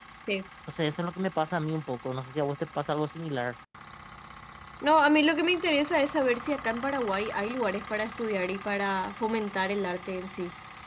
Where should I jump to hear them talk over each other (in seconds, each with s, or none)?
none